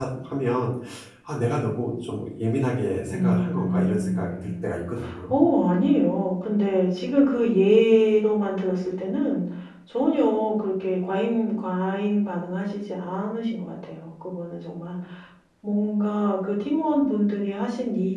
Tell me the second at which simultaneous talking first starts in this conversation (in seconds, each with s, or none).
3.1 s